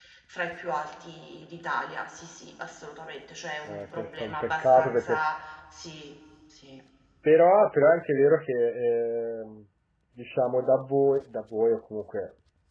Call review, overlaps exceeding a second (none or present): present